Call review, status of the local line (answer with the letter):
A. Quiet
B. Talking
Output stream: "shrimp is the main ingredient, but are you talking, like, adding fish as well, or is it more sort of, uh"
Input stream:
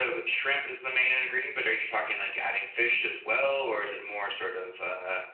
A